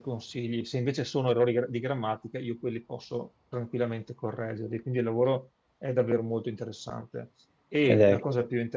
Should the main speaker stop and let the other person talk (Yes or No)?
No